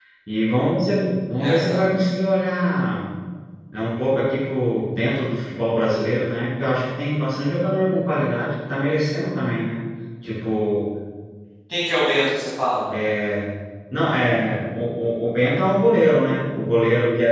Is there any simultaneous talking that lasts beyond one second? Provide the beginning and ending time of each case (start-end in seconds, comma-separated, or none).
none